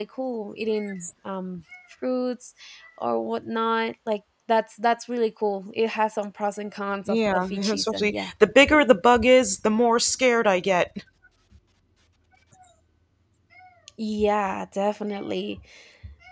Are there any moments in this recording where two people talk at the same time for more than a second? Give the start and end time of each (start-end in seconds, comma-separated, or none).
7.1-8.3